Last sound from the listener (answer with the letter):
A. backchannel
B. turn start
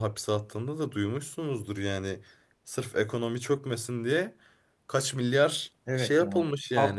B